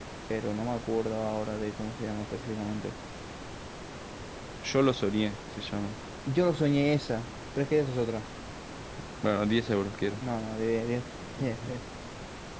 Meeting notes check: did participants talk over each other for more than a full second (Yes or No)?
No